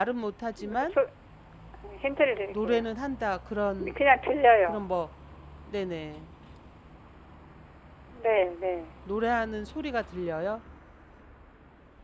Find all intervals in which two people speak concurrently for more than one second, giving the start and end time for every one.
none

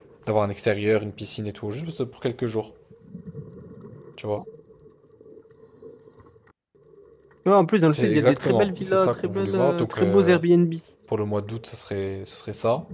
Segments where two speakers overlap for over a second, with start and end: 7.9-10.4

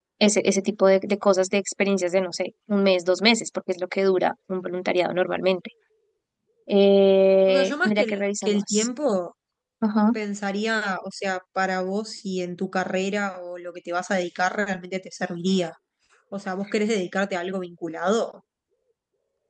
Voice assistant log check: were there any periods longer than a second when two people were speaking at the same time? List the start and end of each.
7.5-8.9

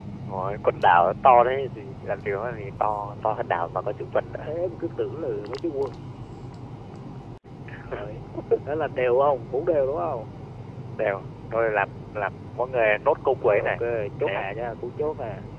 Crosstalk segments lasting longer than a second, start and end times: none

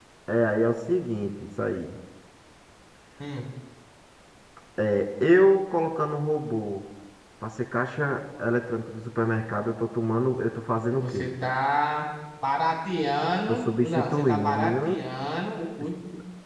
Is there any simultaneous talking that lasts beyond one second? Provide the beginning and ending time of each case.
13.5-15.0

